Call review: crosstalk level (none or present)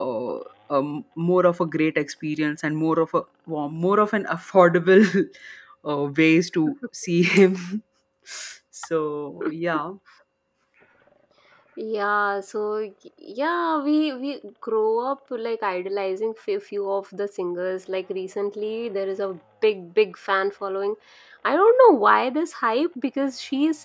none